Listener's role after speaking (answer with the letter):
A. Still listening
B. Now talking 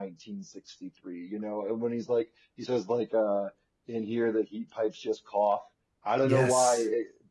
A